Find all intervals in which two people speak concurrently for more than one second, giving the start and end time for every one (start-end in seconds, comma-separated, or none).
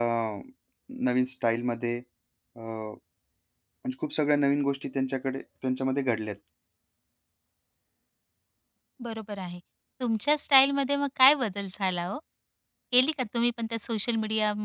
none